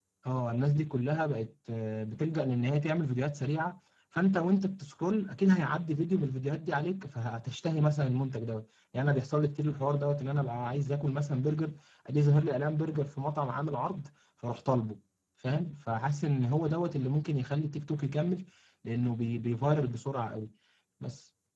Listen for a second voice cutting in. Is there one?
No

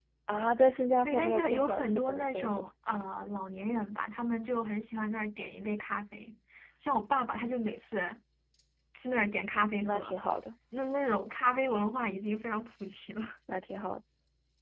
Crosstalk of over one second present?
Yes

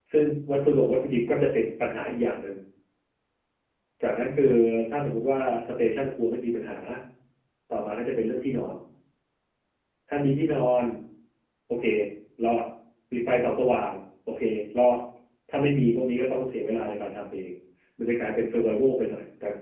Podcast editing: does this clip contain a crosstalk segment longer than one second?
No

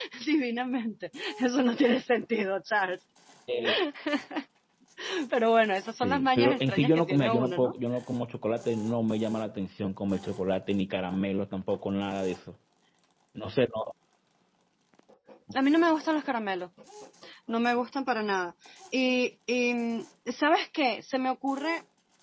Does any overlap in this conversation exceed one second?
Yes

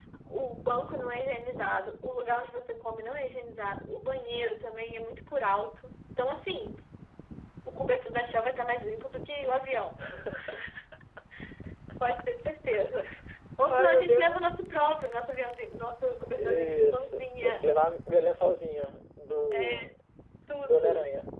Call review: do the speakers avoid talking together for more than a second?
No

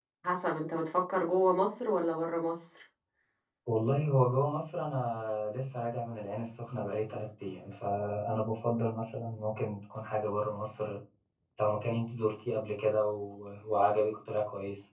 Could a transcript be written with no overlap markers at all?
Yes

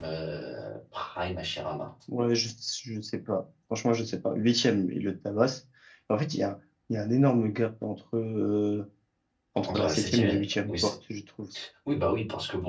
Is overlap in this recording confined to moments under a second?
No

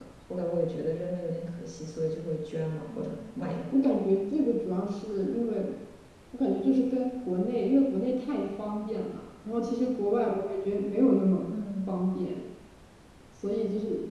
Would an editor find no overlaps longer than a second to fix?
Yes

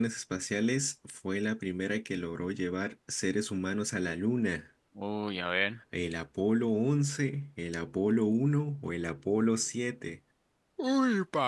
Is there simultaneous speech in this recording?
No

